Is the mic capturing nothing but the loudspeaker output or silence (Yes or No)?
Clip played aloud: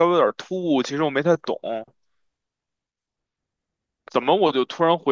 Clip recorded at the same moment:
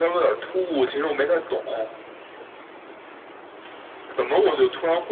Yes